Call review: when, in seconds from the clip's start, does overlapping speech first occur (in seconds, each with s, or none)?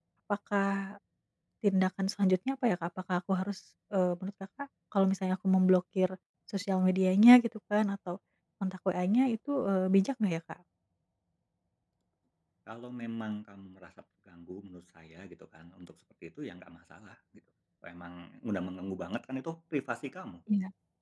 none